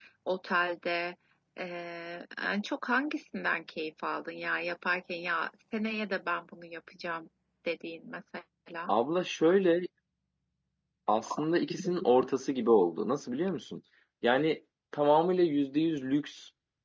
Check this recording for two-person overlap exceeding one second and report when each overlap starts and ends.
none

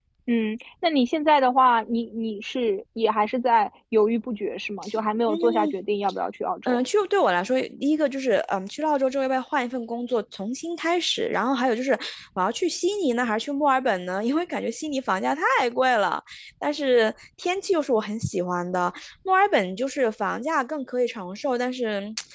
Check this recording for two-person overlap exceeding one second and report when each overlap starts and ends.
none

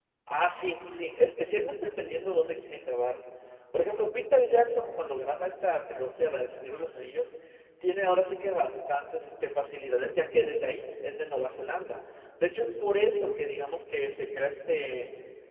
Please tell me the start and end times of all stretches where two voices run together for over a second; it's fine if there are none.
none

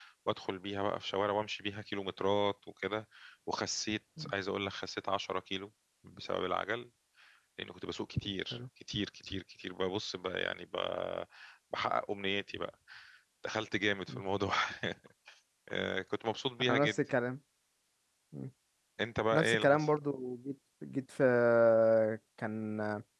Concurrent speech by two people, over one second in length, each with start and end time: none

